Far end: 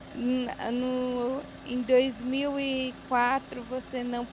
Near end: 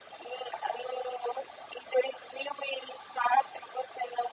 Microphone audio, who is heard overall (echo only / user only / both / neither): echo only